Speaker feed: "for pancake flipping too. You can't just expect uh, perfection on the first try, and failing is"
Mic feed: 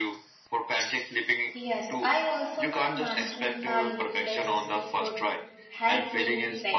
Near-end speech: present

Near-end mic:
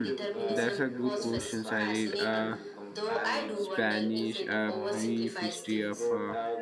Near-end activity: present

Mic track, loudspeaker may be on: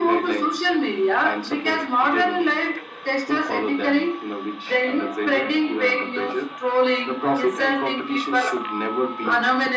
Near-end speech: none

